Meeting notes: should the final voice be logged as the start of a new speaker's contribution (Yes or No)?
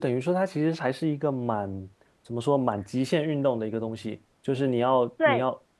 No